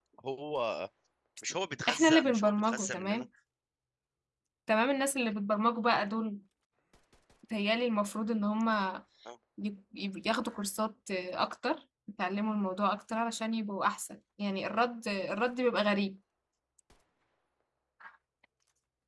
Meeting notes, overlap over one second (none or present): present